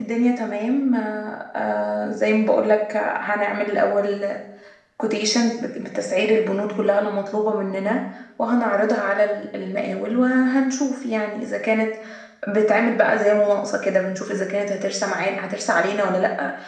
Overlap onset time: none

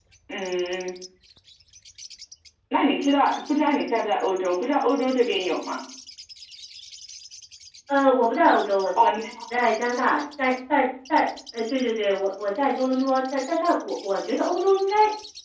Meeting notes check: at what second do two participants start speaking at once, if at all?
none

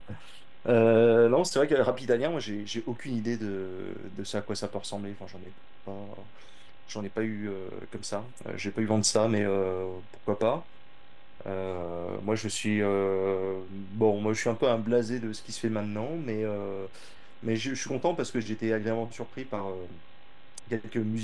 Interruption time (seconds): none

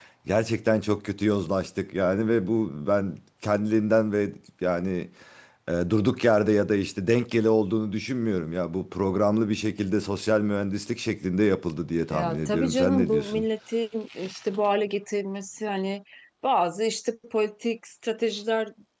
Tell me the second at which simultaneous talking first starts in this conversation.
12.1 s

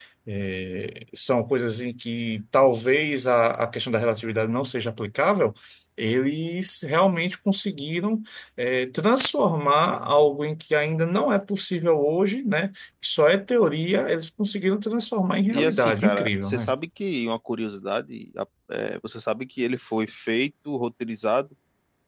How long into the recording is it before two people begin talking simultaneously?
15.5 s

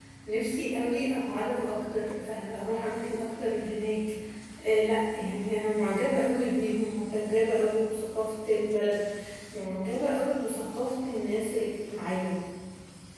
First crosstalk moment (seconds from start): none

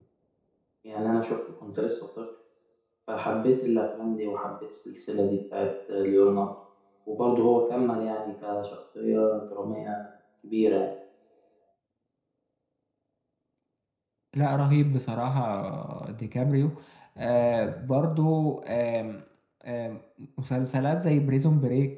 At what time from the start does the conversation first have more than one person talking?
none

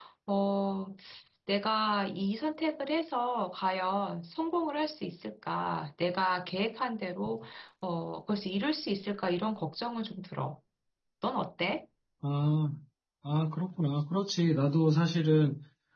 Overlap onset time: none

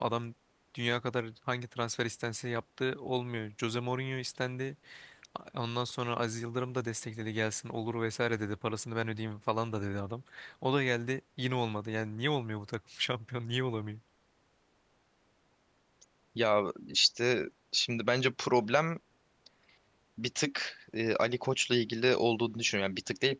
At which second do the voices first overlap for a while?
none

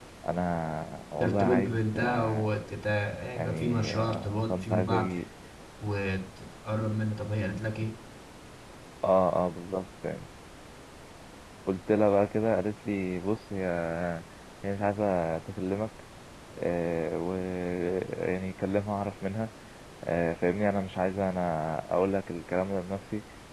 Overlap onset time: 1.2 s

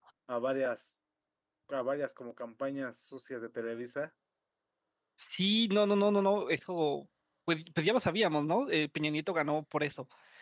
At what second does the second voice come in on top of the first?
none

